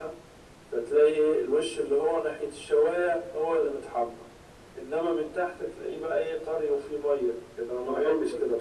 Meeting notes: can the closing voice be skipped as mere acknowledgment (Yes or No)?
No